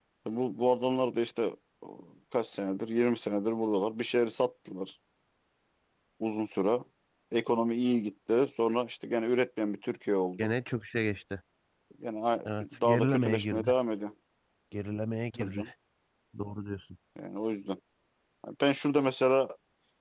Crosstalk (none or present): present